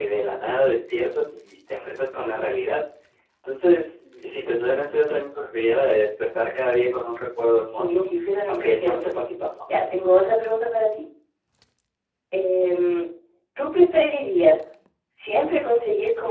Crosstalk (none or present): present